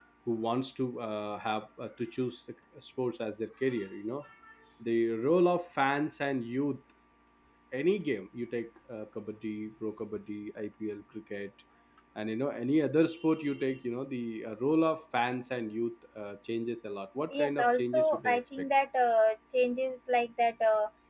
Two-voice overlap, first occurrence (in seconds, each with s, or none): 17.3 s